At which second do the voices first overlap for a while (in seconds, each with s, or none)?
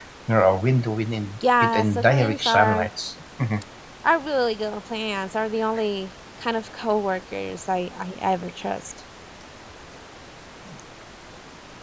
1.4 s